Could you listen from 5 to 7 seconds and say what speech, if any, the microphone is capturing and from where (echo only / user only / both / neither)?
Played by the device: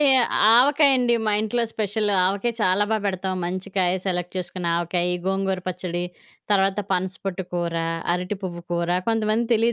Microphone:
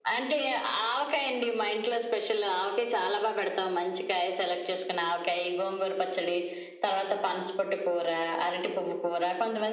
echo only